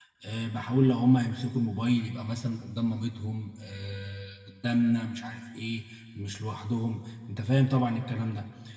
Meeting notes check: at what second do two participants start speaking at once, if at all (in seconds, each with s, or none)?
none